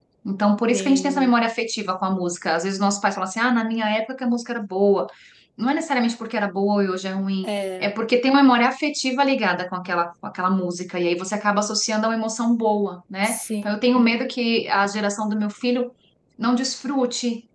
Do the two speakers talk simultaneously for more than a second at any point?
No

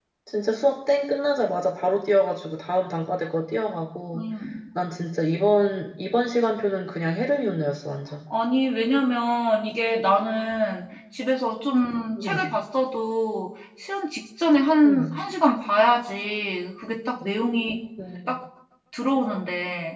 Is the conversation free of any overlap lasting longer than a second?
Yes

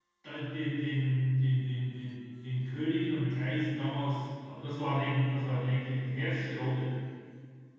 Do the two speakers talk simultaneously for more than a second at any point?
No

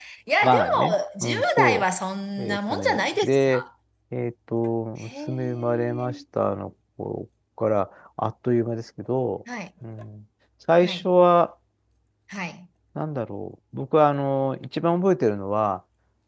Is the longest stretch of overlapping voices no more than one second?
No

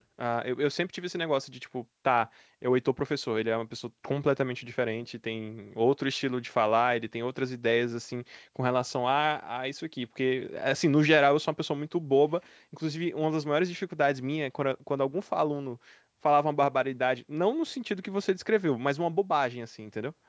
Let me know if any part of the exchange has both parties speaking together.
No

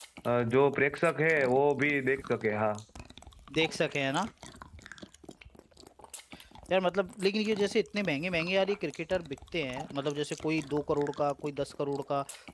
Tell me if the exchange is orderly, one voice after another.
Yes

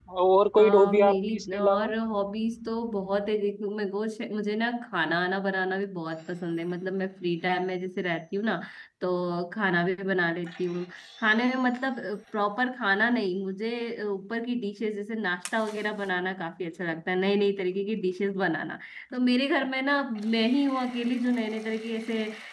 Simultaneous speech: Yes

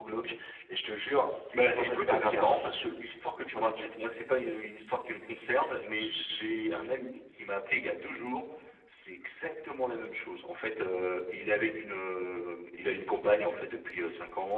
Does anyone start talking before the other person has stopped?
Yes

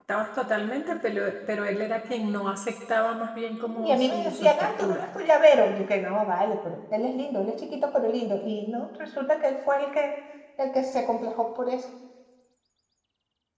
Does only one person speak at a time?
No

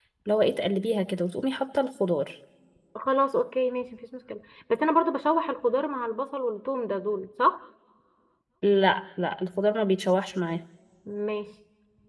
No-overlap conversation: Yes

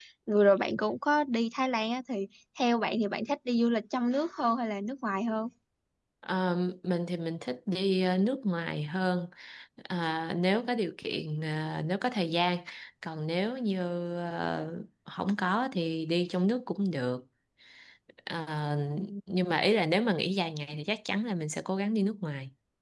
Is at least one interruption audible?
No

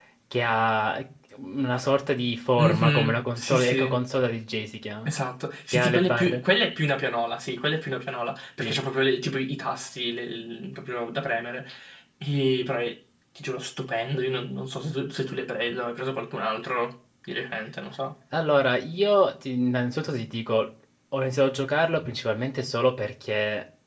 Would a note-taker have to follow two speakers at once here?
Yes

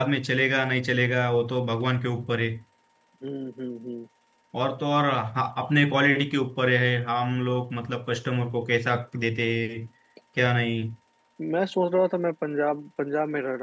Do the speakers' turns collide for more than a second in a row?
No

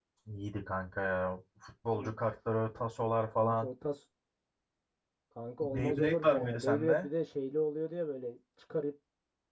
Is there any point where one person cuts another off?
Yes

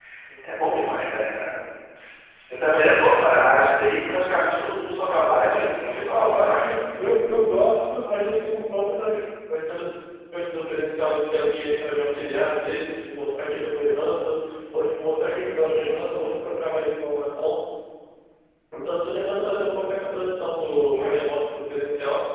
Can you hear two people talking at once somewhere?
Yes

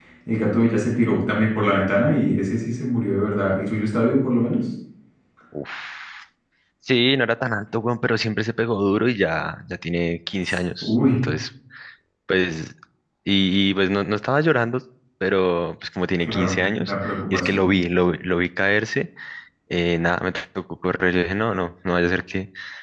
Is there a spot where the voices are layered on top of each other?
Yes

